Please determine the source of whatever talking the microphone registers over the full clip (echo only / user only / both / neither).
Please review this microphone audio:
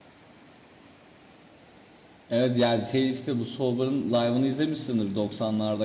user only